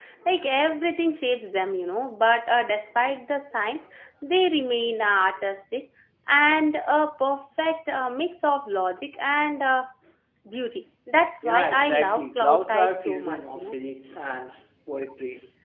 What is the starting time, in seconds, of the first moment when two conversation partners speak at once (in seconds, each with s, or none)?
11.4 s